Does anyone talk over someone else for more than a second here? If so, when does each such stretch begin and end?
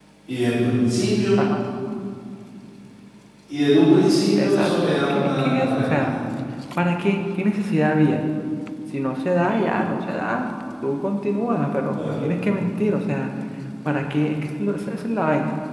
4.4-6.0

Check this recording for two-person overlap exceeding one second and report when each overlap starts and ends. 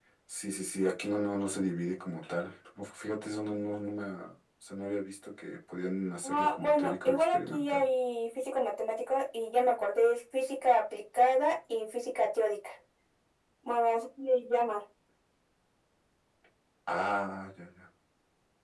6.2-7.9

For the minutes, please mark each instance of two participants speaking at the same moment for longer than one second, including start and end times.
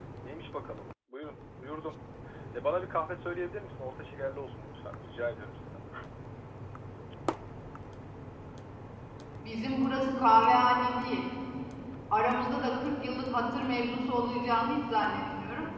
none

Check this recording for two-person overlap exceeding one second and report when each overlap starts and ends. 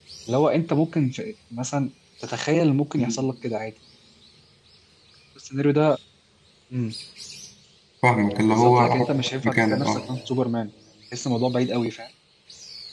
8.5-10.0

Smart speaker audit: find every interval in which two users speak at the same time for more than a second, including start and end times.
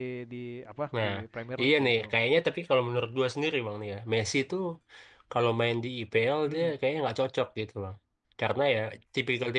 none

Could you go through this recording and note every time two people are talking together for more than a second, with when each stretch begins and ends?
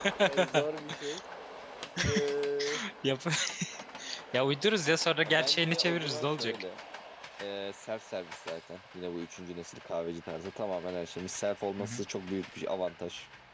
5.2-6.5

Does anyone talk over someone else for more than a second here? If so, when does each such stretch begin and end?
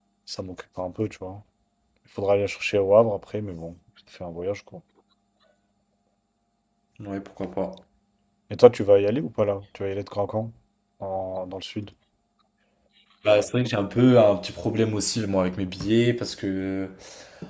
none

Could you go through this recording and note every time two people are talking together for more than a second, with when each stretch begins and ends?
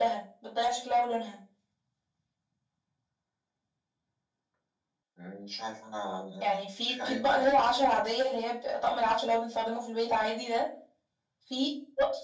6.4-7.8

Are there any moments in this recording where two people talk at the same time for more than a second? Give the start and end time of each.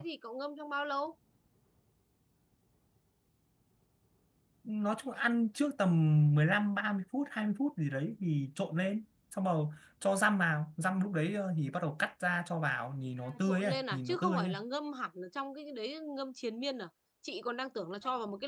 13.2-14.6

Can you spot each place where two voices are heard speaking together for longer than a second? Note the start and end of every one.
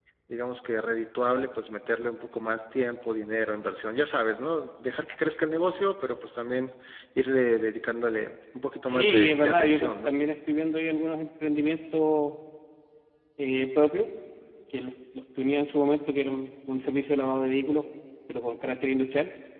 8.9-10.1

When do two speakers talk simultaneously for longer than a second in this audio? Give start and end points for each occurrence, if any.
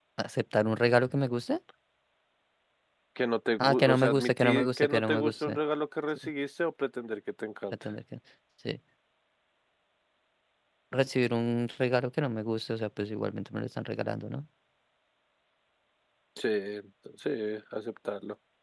3.6-5.6

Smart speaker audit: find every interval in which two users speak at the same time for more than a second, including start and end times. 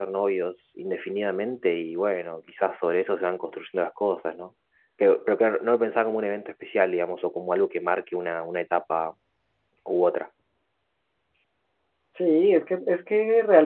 none

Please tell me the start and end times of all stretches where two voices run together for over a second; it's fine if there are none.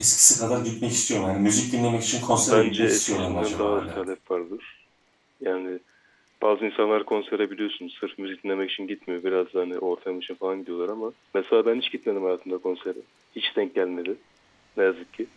2.3-4.0

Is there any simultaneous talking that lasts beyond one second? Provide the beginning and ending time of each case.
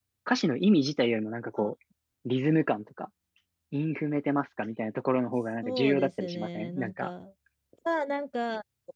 5.6-7.1

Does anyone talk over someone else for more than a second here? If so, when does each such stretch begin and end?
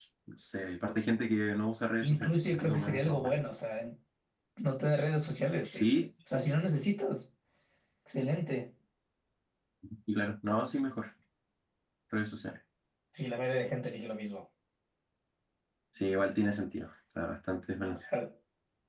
2.0-3.3

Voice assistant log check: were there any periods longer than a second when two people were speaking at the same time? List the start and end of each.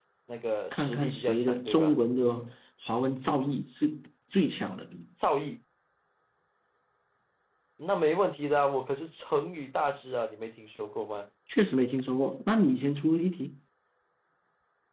0.7-2.0

